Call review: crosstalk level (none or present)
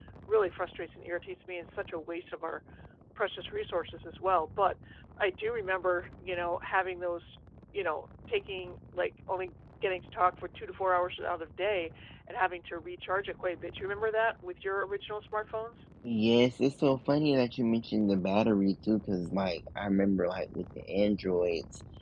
none